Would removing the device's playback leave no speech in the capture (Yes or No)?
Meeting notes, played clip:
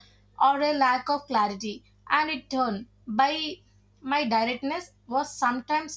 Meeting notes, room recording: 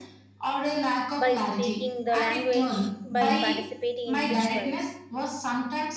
No